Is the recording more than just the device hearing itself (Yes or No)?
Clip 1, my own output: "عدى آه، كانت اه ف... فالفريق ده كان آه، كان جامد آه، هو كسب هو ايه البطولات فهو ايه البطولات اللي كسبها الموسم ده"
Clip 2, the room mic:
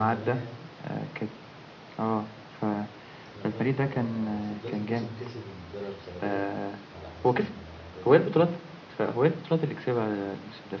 Yes